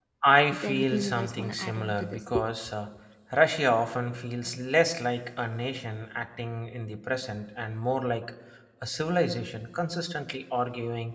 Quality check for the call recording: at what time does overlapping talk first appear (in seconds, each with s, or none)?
0.5 s